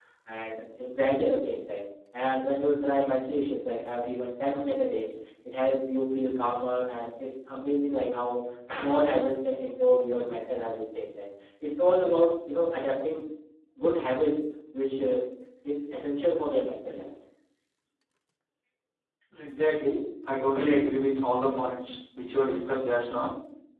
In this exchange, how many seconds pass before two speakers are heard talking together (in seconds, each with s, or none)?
none